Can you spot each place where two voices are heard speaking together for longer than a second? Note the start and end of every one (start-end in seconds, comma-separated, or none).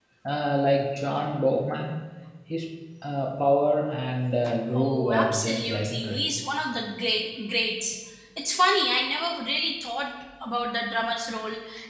4.8-6.3